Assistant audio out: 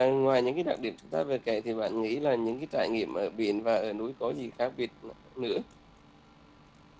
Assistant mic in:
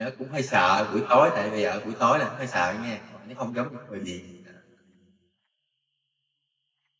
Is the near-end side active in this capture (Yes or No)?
Yes